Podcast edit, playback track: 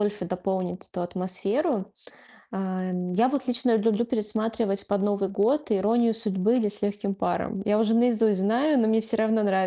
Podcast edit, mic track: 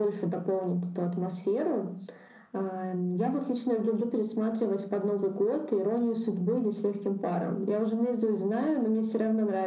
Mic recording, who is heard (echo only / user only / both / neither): echo only